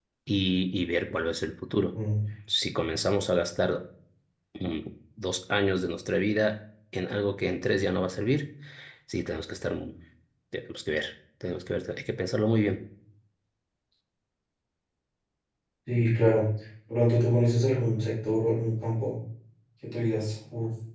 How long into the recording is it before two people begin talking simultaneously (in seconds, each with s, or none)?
none